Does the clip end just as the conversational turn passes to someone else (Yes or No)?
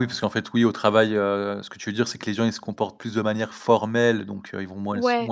No